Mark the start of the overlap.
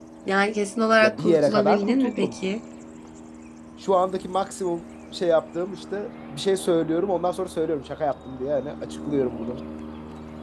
1.0 s

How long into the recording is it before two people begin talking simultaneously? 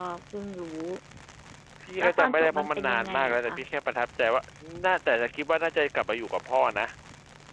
2.0 s

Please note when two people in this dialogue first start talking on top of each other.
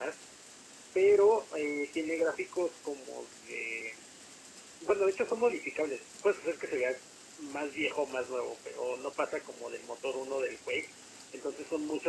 none

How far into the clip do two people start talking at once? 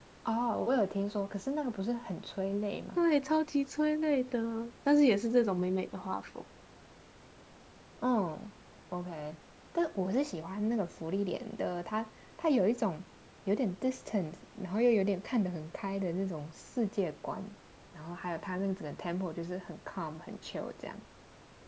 none

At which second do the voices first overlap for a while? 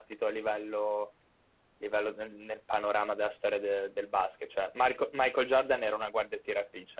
none

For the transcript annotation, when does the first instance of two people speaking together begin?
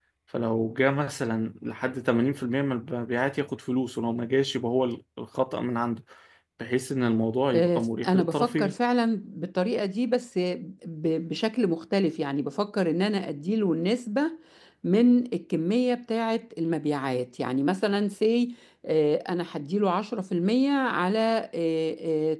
7.5 s

